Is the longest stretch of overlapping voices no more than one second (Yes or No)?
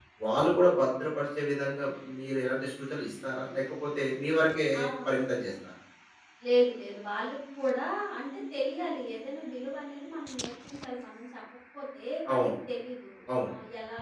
Yes